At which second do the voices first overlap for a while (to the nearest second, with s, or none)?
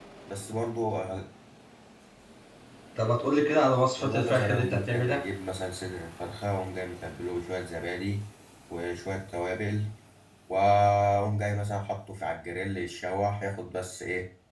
4 s